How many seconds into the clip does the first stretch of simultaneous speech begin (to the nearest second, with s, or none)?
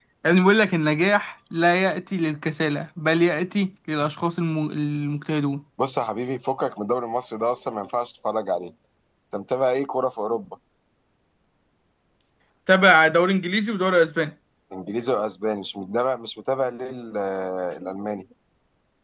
none